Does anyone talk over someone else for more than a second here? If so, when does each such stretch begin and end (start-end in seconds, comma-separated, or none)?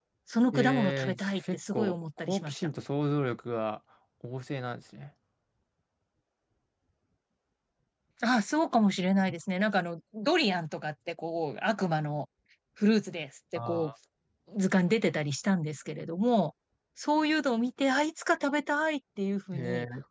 0.5-2.7